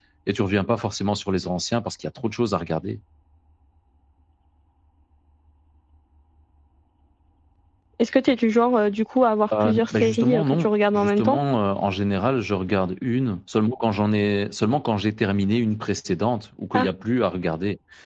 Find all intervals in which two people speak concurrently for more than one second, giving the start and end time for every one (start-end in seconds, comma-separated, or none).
9.6-11.4